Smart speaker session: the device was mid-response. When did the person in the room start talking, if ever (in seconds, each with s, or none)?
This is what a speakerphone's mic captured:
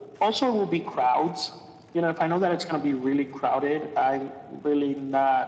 none